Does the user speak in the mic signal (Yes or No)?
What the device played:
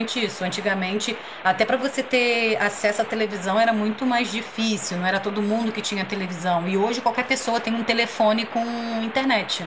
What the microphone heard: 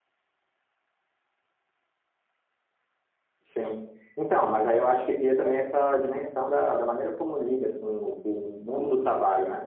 Yes